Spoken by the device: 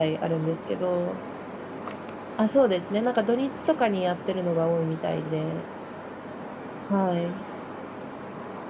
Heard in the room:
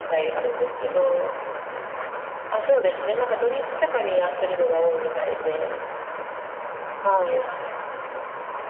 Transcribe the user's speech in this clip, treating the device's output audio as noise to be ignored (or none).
none